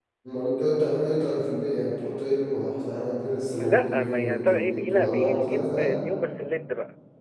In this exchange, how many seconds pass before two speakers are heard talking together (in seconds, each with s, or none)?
3.6 s